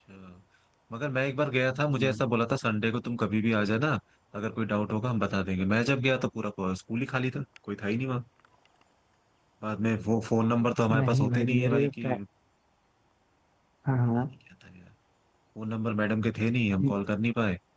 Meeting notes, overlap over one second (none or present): present